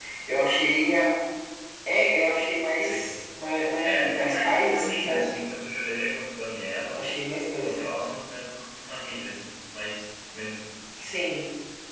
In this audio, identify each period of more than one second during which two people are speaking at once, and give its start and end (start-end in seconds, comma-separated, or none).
3.8-5.2